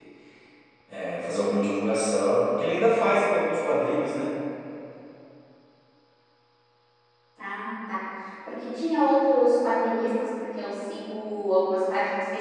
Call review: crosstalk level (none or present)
none